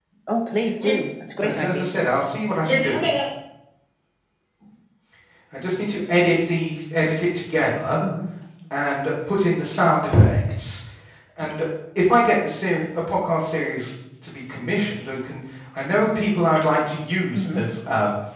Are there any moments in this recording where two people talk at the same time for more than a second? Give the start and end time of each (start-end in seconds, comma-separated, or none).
none